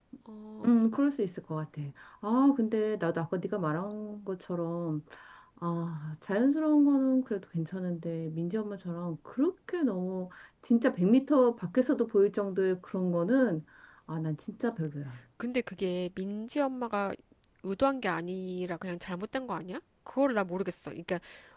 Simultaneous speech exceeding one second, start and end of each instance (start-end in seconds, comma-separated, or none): none